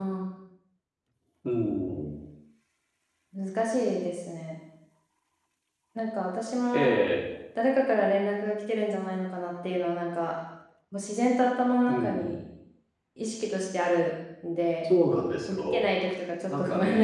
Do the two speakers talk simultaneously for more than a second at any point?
No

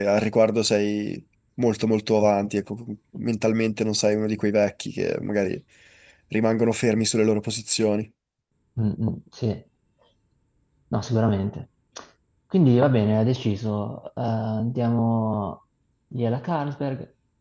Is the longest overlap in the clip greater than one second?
No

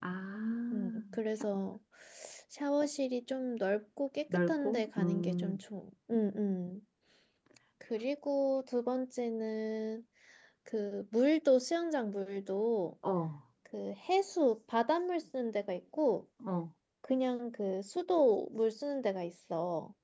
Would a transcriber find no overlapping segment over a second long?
No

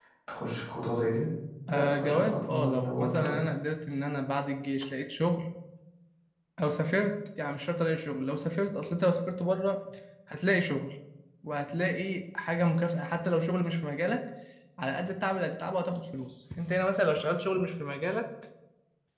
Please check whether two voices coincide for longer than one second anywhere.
Yes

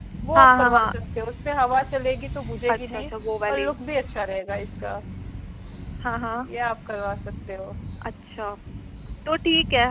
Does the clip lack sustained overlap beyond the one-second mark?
Yes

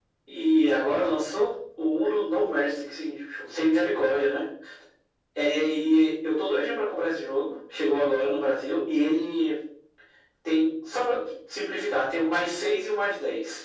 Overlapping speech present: No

